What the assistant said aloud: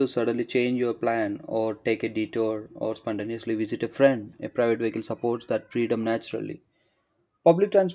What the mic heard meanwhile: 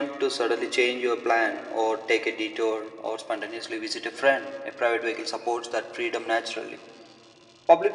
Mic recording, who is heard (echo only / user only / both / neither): echo only